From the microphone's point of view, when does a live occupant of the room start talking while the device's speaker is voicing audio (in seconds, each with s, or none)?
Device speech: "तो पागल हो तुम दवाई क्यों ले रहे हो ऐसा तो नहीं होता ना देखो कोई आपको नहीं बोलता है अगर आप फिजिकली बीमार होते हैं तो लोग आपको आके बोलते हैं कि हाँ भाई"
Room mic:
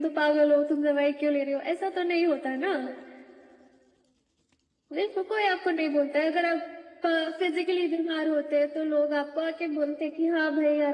none